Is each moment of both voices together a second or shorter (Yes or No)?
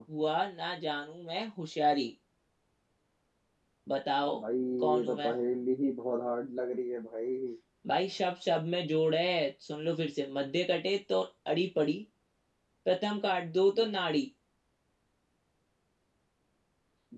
Yes